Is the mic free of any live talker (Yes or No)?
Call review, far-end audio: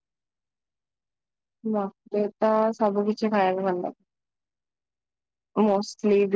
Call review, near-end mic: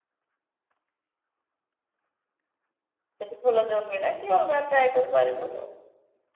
No